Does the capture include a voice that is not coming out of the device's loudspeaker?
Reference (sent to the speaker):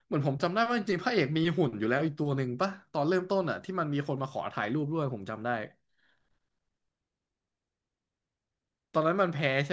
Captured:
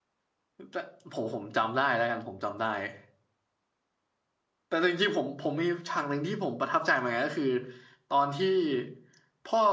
Yes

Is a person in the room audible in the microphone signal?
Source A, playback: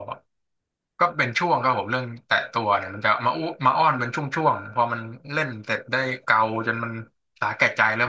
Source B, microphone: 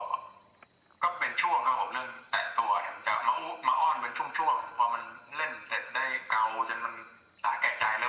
No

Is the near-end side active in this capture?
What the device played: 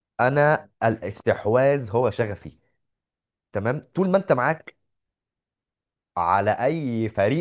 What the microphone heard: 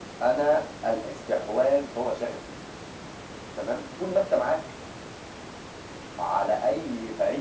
No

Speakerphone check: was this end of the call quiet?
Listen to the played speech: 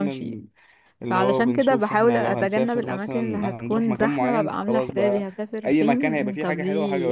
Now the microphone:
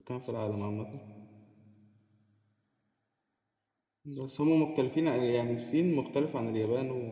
No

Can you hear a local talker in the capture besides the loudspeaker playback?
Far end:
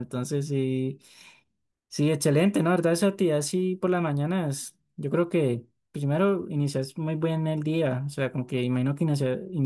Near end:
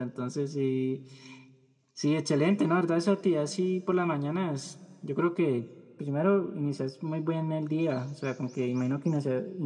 No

